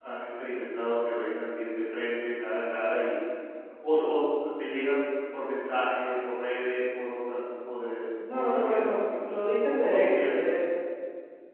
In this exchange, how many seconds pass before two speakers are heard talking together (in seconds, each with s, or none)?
8.2 s